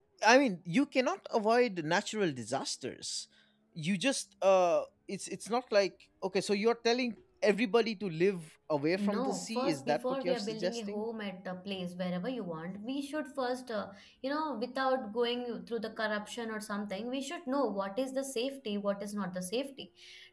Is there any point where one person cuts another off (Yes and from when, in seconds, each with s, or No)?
Yes, from 9.0 s